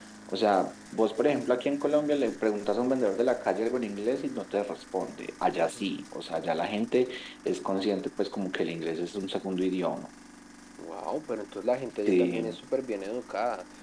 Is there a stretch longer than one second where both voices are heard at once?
No

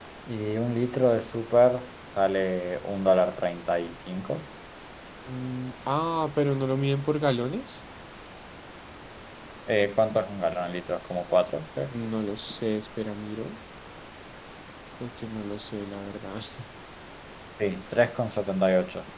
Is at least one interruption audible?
No

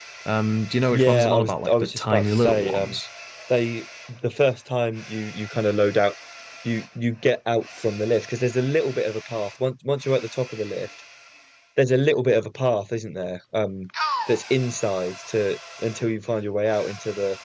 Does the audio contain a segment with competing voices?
Yes, from 0.9 s

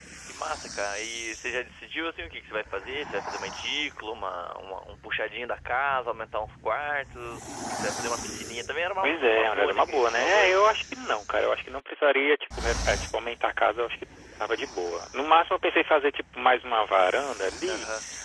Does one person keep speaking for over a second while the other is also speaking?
Yes, from 9.0 s

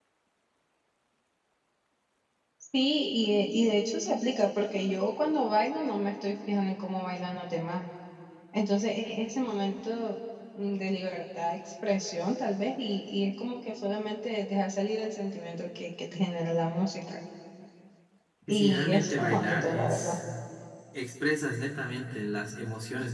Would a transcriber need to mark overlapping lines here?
Yes, from 18.5 s

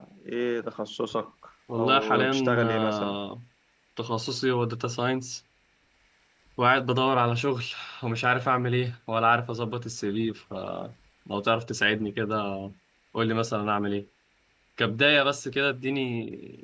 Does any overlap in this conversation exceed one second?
Yes, from 1.8 s

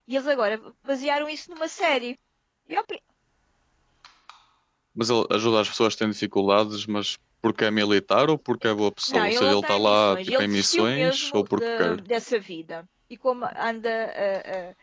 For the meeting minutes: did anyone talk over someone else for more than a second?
Yes, from 9.1 s

